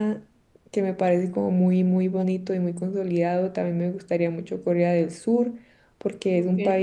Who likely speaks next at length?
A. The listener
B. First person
B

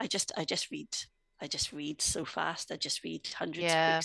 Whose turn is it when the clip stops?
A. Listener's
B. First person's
A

